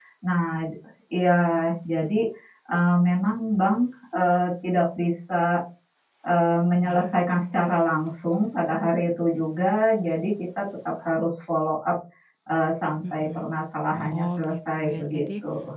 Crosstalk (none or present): present